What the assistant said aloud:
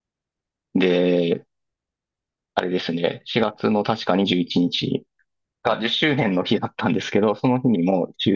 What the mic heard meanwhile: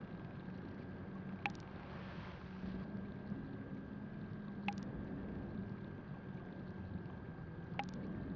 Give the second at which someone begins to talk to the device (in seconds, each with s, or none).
none